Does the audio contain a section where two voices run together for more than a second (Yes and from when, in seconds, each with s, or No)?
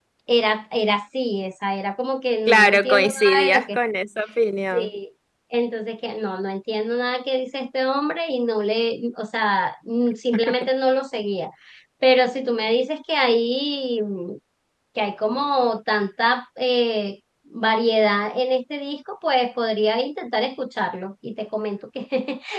Yes, from 2.4 s